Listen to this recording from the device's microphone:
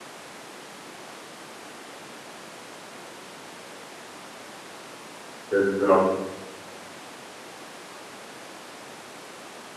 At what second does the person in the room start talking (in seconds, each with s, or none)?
5.5 s